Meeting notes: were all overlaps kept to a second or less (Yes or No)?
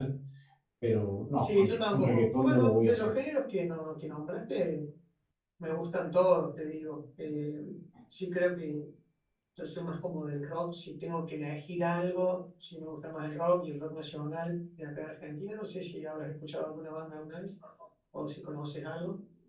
No